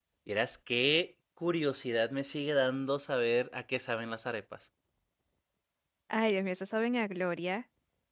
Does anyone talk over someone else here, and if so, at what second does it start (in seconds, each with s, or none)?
none